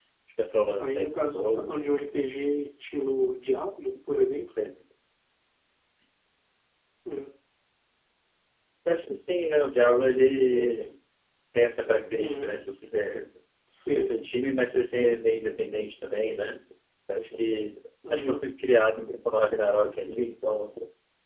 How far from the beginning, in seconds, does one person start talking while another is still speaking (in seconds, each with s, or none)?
0.8 s